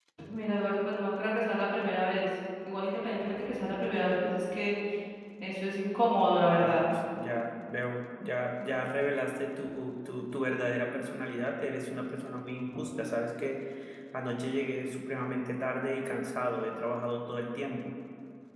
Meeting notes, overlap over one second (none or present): none